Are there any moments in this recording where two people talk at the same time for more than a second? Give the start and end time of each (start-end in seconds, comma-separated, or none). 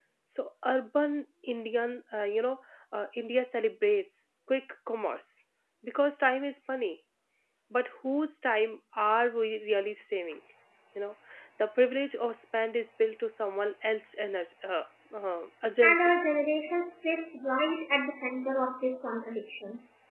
none